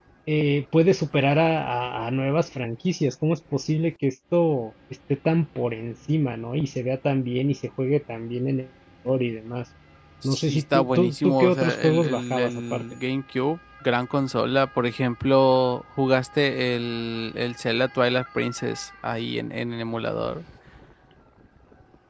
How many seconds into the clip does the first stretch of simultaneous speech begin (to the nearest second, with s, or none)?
10 s